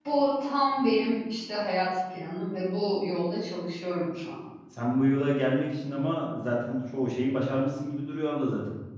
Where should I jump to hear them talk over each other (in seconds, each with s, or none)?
none